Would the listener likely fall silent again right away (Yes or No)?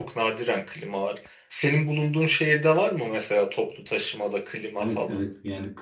No